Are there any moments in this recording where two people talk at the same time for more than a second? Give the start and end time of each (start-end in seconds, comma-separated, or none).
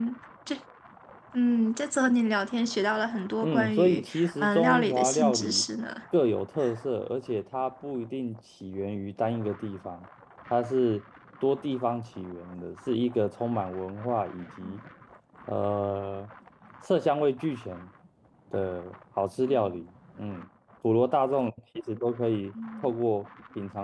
3.4-5.6